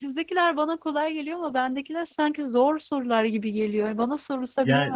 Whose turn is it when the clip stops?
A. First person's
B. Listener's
B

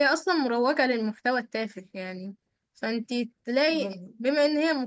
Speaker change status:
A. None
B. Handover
A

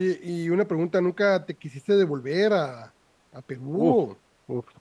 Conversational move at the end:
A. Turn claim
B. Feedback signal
A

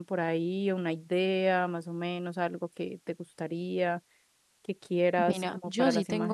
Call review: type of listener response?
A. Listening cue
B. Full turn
B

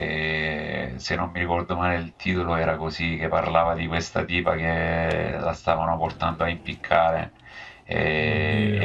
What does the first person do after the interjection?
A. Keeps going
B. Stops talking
A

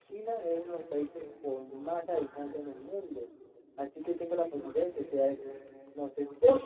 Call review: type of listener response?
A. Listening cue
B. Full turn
B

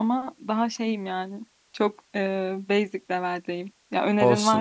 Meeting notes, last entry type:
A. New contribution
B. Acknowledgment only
A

